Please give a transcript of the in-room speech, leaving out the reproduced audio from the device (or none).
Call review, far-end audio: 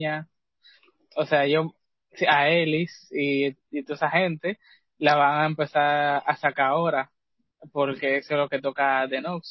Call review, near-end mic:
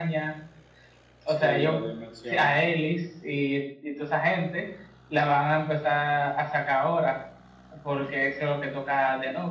Sí, las dimensiones.